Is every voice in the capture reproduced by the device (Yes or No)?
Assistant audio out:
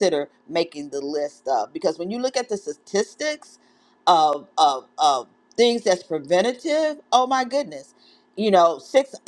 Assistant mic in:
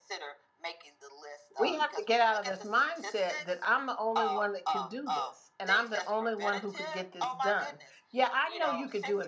No